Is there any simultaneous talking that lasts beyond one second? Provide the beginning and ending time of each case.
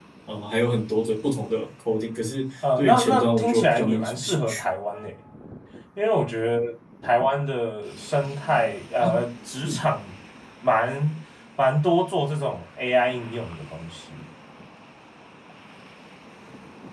2.8-4.6

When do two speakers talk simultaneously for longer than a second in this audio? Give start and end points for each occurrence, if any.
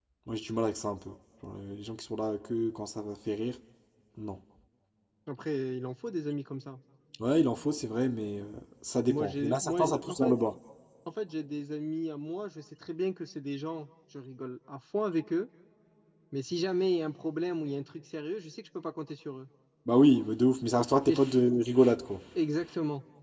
9.1-10.4

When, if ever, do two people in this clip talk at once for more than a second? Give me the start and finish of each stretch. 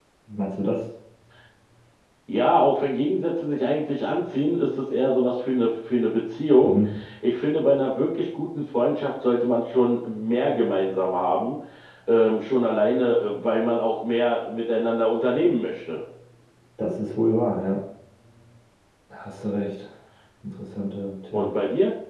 none

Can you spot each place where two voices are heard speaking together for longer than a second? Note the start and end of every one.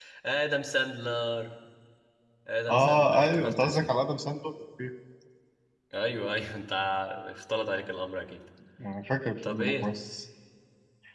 2.7-3.9

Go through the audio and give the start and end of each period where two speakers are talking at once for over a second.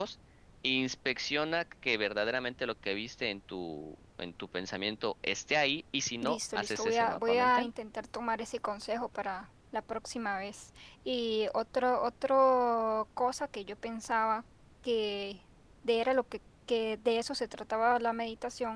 6.2-7.7

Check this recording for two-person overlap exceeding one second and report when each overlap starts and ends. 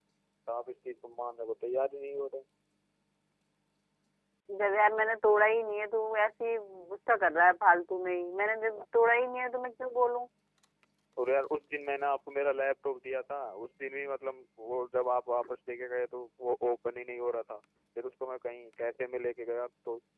none

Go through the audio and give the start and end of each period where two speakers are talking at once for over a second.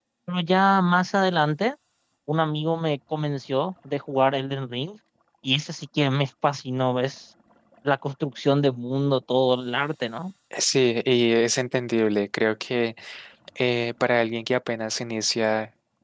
none

